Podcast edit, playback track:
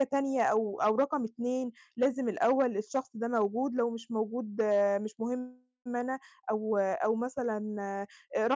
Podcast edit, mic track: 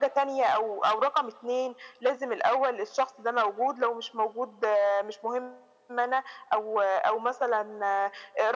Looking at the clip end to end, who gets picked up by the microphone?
echo only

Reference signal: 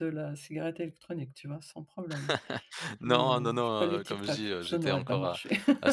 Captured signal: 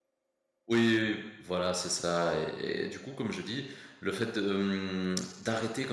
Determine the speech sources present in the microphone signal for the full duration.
user only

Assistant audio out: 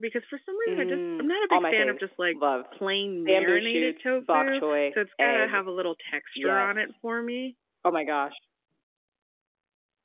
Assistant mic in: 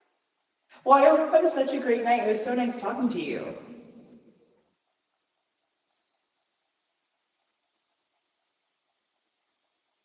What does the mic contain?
user only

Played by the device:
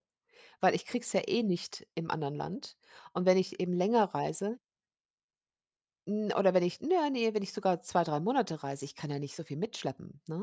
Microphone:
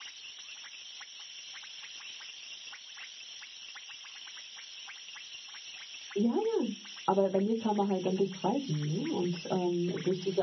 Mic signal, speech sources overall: user only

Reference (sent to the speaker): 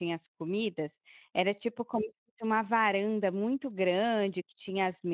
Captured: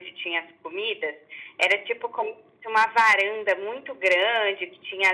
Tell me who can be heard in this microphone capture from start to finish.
echo only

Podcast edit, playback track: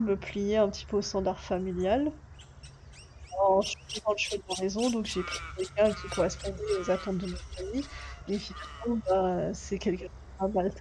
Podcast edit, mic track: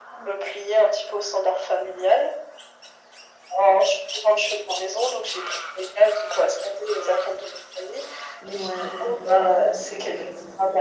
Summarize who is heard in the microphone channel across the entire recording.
both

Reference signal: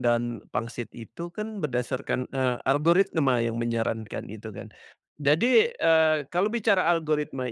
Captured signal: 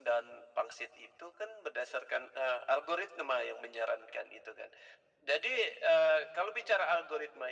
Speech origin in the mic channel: echo only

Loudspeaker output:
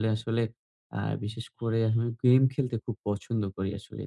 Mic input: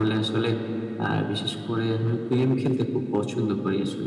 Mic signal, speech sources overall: echo only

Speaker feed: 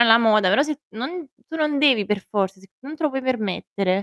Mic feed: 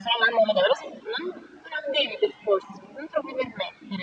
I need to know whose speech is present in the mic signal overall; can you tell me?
echo only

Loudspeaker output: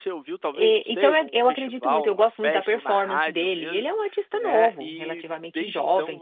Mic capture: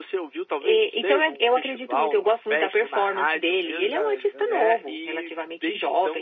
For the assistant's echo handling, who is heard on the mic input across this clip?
both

